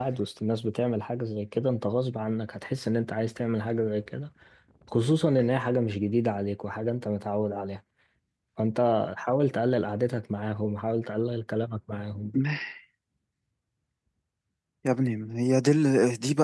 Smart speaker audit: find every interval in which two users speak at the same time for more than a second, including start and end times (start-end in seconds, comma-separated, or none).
none